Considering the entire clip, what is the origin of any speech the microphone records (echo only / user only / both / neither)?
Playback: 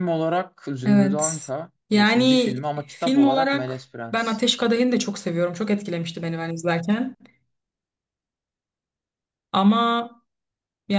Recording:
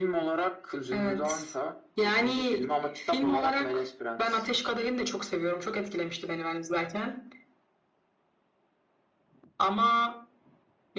echo only